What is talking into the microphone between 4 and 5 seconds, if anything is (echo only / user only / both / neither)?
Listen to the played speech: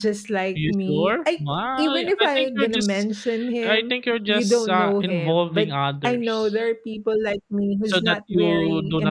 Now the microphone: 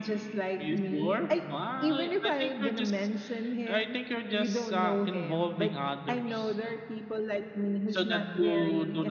echo only